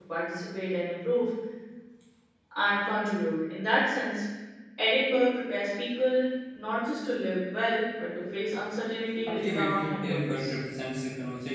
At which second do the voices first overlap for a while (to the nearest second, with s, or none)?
9 s